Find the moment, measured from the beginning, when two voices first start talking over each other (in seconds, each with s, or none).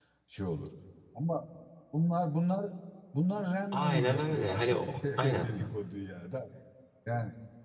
3.7 s